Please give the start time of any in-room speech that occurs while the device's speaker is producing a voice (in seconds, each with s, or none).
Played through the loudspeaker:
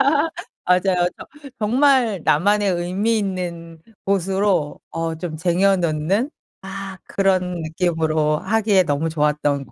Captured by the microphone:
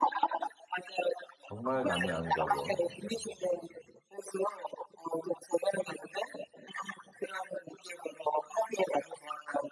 1.5 s